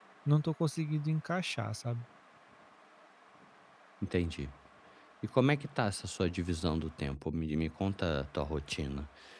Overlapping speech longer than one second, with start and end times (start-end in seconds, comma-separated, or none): none